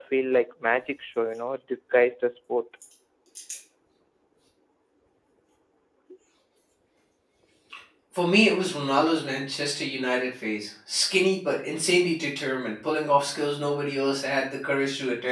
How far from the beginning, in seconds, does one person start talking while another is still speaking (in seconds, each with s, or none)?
none